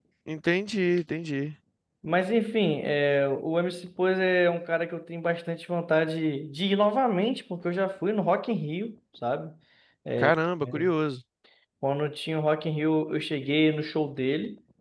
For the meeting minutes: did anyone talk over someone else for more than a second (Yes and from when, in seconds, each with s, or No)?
No